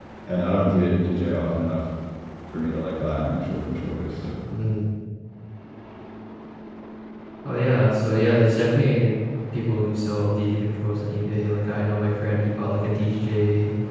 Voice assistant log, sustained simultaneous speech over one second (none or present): none